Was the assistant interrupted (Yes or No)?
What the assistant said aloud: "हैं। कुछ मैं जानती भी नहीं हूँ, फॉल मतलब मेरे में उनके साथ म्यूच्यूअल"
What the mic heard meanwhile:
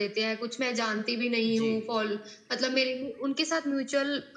Yes